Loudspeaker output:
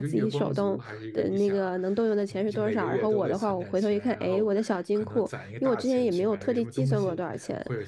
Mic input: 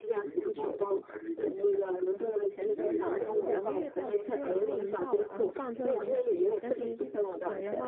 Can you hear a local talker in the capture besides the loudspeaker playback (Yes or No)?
Yes